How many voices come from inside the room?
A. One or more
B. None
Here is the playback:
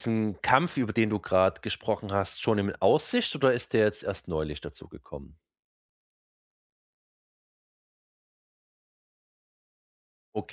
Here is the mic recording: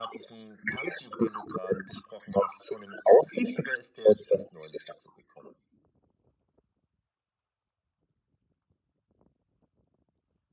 B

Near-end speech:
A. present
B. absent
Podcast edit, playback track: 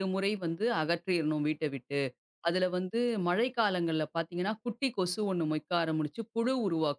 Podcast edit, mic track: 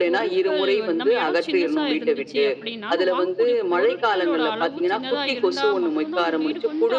A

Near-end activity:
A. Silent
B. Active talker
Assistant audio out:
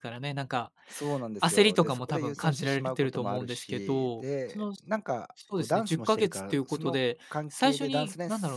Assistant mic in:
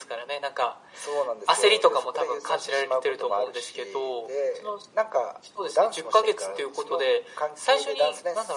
A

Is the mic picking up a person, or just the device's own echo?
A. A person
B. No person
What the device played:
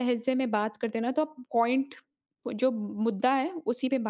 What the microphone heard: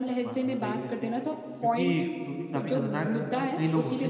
A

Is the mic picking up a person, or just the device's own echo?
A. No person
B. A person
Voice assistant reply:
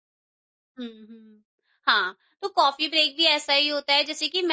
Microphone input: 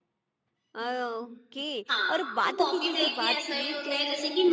B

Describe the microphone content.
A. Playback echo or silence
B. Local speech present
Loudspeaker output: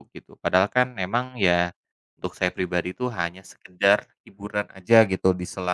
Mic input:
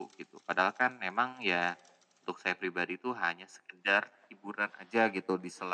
A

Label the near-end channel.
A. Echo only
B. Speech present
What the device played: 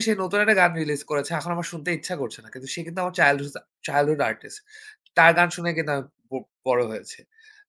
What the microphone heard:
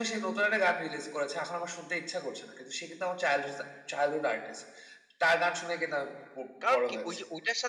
B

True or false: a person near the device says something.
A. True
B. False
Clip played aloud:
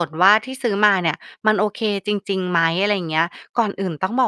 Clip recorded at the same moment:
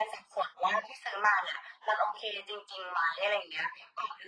B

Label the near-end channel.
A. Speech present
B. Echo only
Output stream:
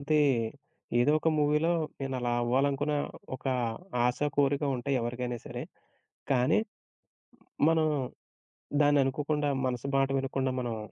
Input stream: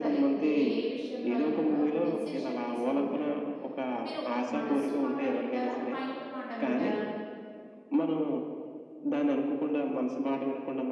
A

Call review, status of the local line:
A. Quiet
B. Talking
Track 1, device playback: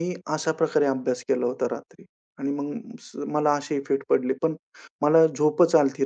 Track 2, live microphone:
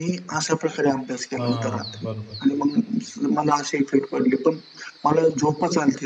B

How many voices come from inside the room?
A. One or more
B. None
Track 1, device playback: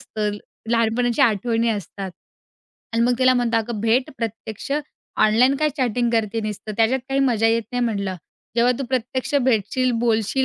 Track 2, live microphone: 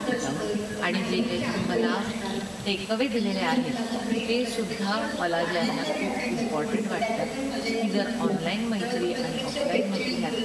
A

